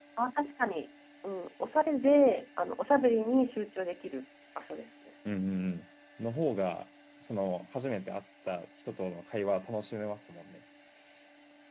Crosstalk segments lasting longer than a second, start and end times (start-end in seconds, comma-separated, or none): none